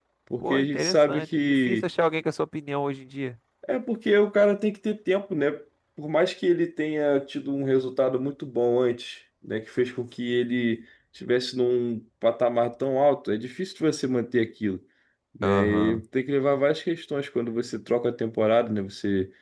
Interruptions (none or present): present